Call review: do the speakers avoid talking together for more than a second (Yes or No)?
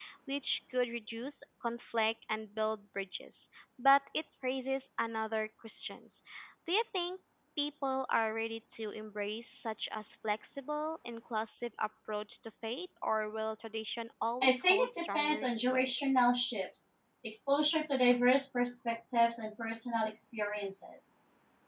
No